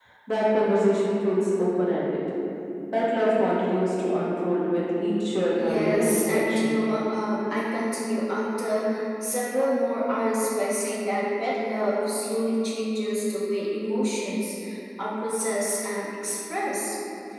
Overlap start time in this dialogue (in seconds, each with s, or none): 5.6 s